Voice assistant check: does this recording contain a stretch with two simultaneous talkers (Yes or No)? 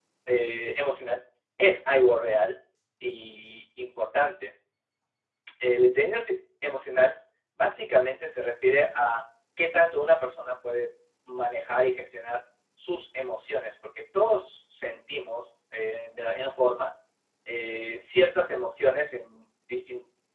No